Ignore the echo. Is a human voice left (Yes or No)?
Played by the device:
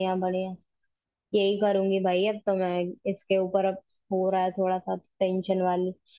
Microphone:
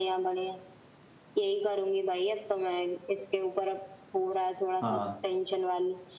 Yes